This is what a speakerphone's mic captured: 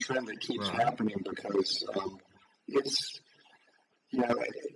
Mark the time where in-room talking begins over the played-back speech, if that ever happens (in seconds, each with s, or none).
0.5 s